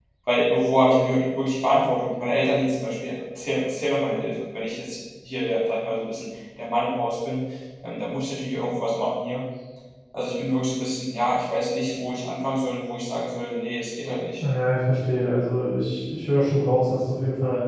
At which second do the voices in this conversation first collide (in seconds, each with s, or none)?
none